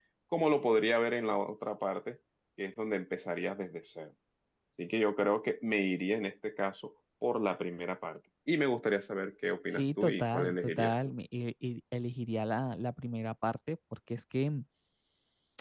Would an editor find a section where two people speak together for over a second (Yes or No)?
Yes